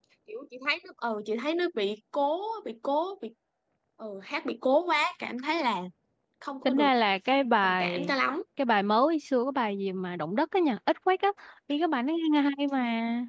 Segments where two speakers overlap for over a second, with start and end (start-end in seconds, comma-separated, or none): none